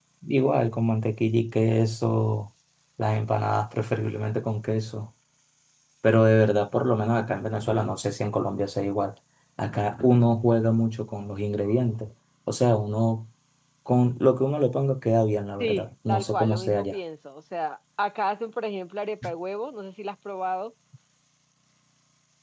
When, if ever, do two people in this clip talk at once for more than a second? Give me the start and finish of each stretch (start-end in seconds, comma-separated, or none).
15.6-16.9